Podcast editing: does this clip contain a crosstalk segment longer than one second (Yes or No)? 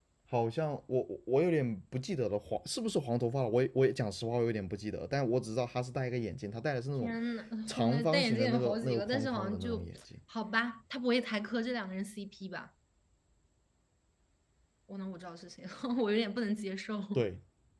Yes